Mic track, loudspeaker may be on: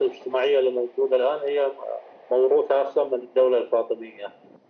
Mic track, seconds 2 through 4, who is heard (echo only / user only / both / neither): echo only